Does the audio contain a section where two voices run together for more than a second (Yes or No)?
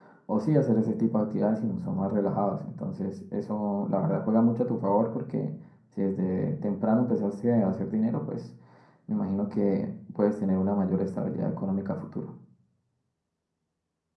No